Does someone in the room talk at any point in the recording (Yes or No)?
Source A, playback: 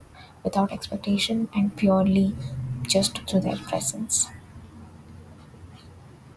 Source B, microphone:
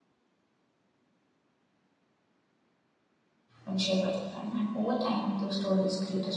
Yes